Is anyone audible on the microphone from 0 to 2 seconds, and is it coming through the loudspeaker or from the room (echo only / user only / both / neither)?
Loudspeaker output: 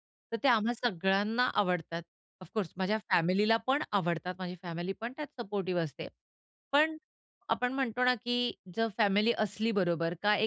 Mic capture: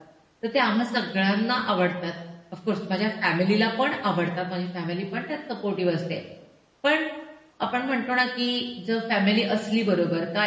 echo only